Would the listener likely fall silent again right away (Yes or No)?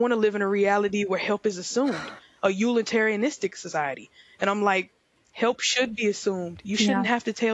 Yes